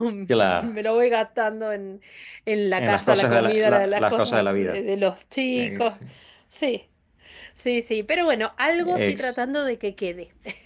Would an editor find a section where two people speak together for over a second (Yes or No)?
Yes